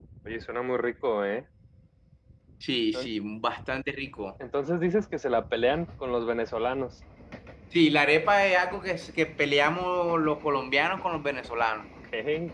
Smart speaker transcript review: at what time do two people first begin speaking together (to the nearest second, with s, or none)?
none